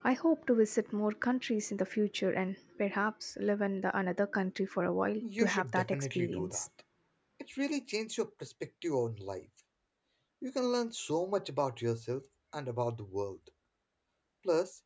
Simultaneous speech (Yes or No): Yes